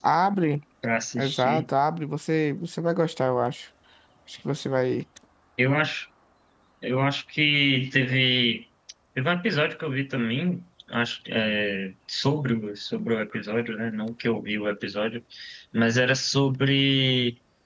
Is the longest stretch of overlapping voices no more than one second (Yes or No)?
Yes